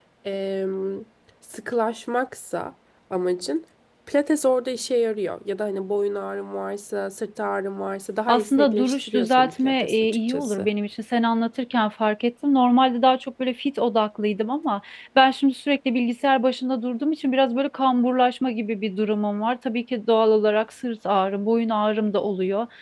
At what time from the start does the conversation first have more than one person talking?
8.3 s

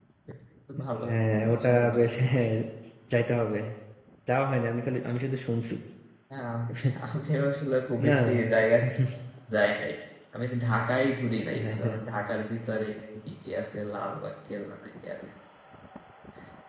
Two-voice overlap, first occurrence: 1.0 s

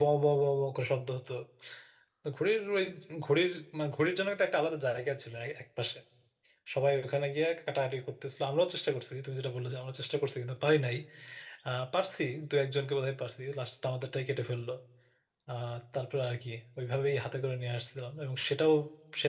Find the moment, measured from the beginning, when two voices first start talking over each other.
none

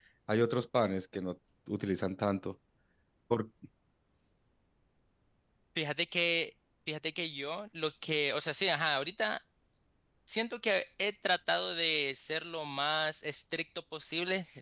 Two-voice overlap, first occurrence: none

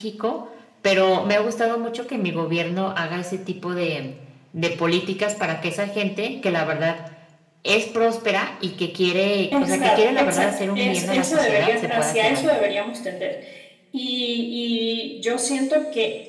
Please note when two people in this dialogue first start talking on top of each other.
9.5 s

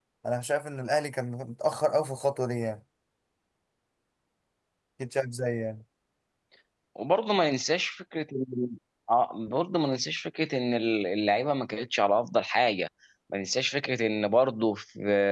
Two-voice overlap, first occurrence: none

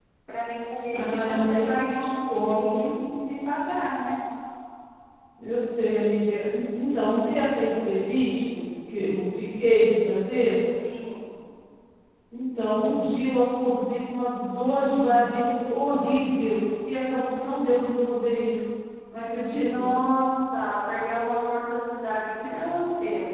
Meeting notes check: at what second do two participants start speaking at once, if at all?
0.9 s

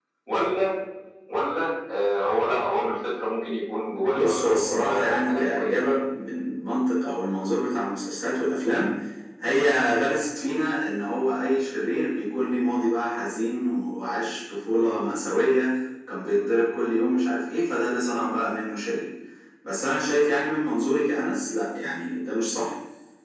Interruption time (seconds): 4.1 s

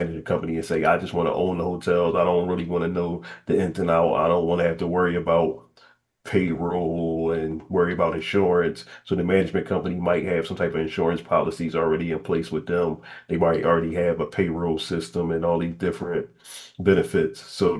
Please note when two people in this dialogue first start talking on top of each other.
none

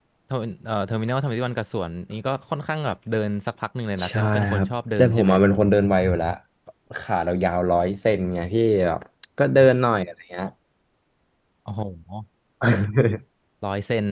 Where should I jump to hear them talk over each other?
4.0 s

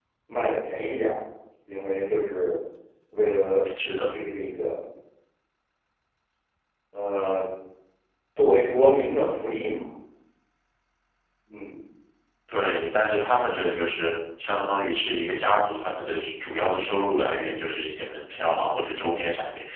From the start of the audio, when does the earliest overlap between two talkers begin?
none

